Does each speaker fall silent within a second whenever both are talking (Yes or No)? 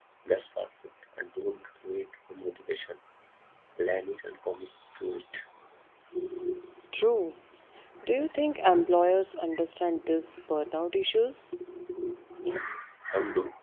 Yes